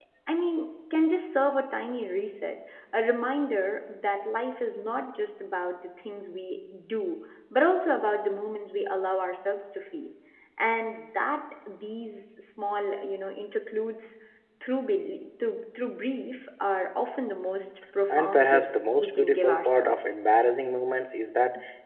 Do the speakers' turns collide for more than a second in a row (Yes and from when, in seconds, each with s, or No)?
Yes, from 18.1 s